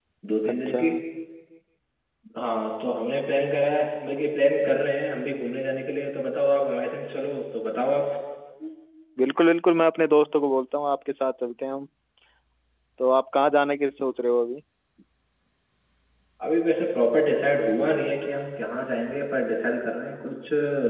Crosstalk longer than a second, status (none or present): none